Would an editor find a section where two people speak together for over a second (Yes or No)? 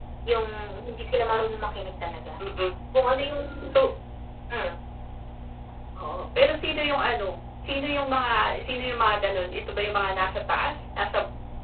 No